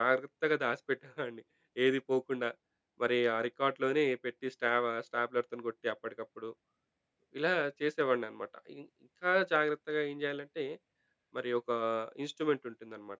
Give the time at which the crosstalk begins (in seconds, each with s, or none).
none